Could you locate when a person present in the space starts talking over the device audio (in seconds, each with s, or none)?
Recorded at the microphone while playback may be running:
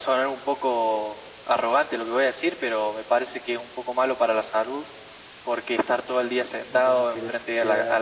6.7 s